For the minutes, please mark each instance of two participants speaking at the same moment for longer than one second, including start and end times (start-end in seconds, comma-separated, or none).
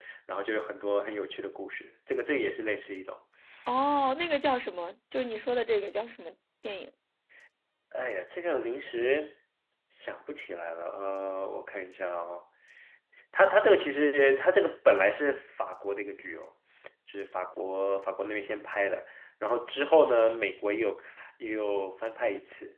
none